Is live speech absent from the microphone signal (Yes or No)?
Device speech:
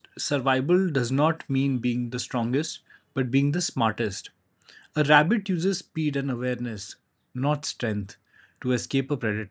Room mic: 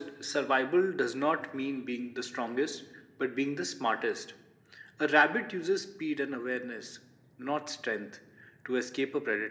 Yes